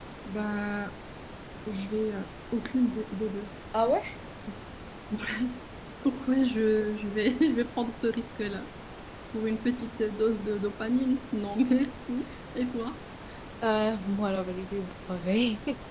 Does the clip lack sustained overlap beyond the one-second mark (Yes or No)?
Yes